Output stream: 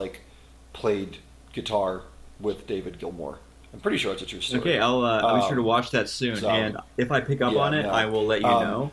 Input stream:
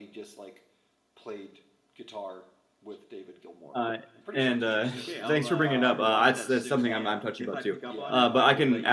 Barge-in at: 3.7 s

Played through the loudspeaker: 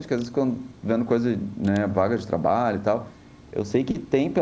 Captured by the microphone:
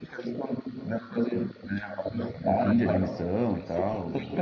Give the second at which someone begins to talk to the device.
2.5 s

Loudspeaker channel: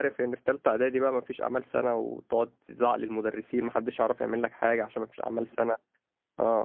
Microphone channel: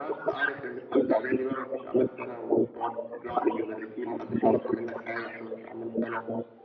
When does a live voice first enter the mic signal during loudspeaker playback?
none

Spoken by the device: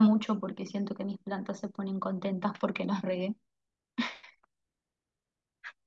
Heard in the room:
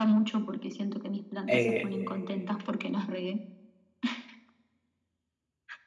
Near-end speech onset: 1.5 s

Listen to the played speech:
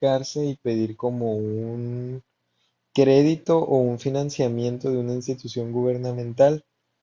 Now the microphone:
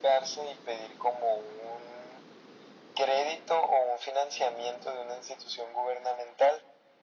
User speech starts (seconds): none

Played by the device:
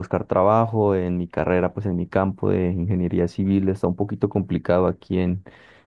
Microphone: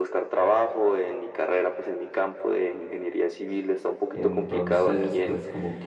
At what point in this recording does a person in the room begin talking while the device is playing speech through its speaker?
4.2 s

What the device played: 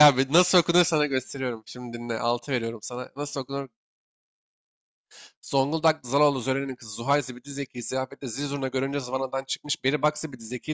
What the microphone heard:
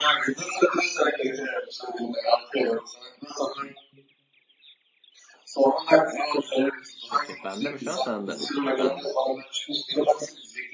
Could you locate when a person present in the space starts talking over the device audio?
7.1 s

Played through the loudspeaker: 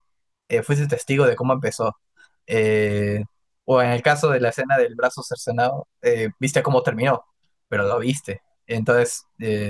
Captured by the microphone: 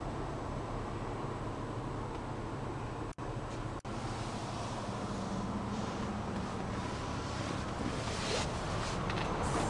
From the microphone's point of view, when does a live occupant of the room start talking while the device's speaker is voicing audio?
none

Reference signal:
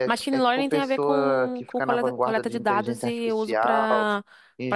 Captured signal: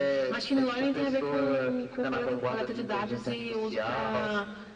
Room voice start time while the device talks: none

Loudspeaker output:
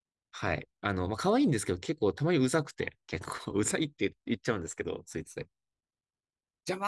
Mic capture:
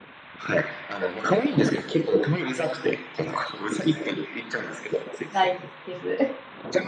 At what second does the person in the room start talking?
5.3 s

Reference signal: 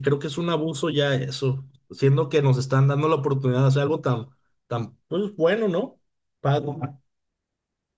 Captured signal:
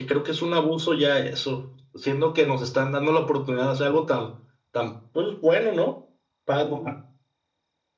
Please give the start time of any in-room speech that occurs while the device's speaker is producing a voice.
none

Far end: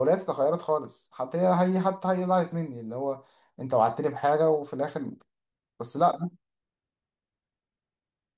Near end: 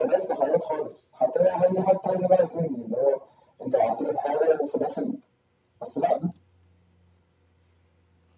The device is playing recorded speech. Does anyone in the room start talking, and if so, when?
none

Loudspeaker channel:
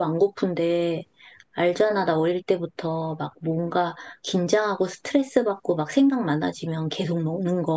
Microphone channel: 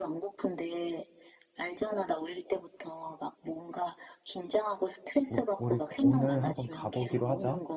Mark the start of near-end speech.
5.3 s

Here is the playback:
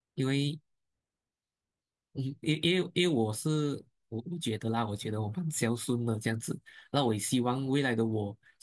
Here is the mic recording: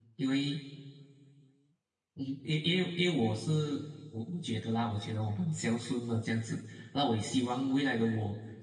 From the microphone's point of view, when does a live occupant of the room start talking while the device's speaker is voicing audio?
none

